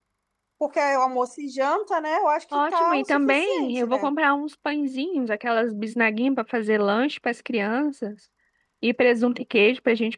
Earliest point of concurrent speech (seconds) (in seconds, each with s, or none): 2.5 s